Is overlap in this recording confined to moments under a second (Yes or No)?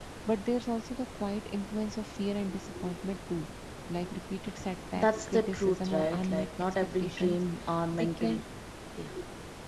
No